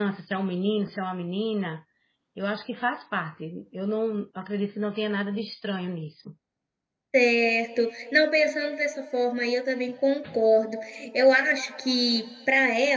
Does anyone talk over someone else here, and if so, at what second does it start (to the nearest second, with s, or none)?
none